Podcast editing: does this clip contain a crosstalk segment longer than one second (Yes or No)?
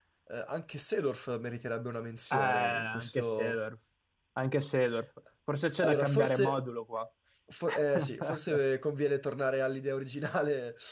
Yes